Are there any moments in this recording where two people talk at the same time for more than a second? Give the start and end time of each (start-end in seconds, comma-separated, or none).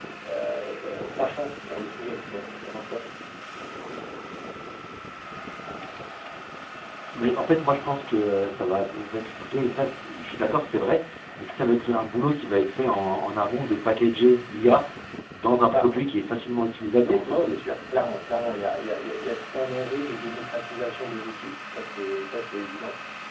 none